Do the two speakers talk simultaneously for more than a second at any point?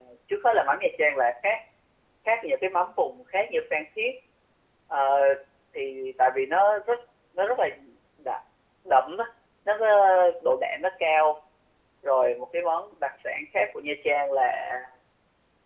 No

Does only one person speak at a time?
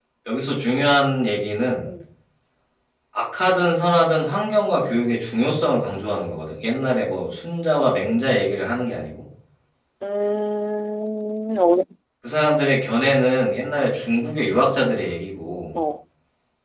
Yes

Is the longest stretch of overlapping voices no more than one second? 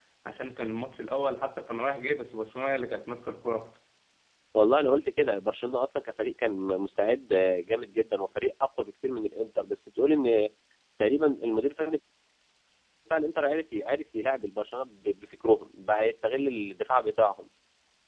Yes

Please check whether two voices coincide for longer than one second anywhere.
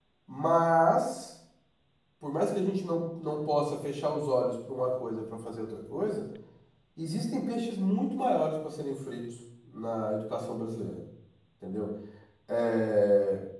No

